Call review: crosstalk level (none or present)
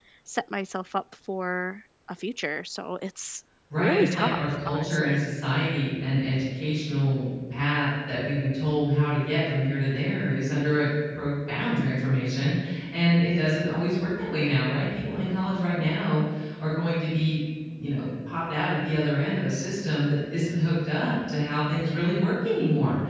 present